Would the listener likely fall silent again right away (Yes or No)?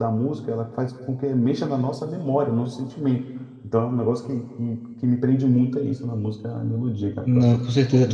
No